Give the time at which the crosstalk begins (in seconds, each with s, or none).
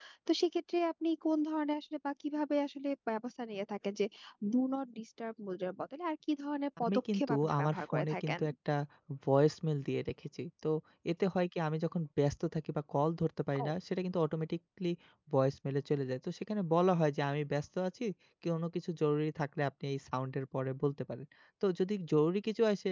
6.8 s